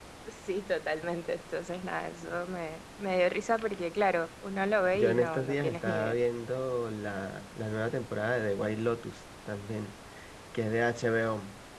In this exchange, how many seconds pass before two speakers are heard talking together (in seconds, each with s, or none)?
4.9 s